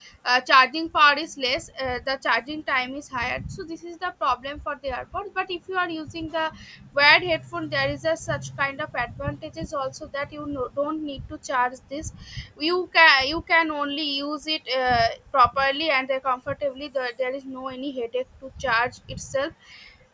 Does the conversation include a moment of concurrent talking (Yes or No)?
No